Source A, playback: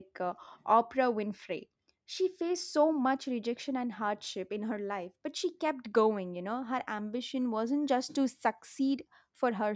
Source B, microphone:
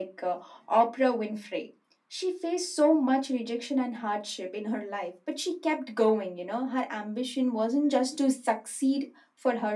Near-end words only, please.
none

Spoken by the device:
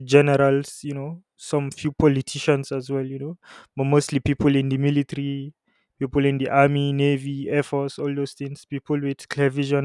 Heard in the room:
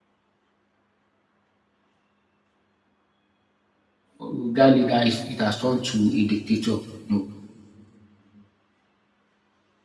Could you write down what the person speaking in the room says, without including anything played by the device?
that leader is it has turned to a dictator. No,

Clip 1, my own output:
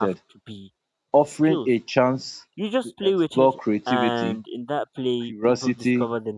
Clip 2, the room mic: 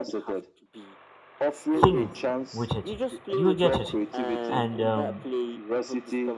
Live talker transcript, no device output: things with it do you get it and um

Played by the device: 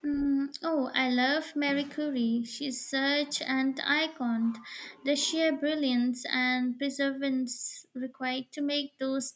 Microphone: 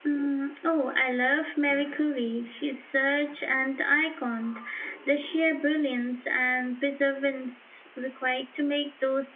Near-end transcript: none

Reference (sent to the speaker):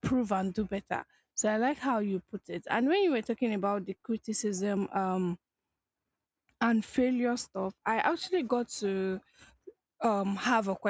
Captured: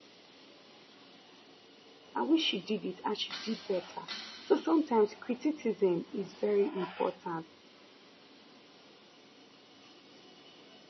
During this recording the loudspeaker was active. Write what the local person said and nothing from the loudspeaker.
I wish she did it and she did better. So sometimes criticism is very important,

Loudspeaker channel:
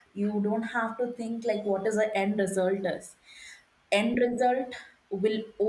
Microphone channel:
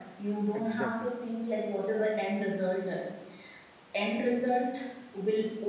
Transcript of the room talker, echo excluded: exactly

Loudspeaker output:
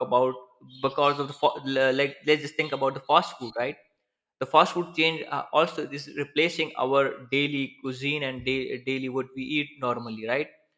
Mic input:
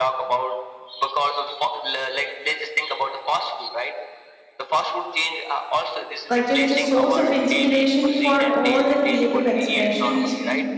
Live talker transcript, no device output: Culture is a source of inspiration for all the creative expressions

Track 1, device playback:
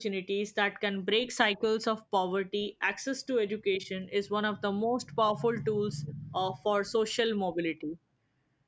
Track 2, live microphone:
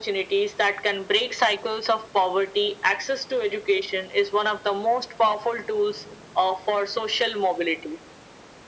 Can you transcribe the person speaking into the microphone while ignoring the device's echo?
none

